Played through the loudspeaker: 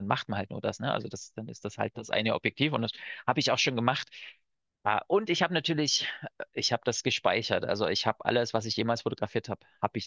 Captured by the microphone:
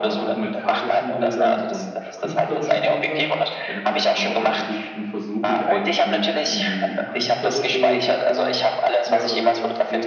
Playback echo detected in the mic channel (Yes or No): Yes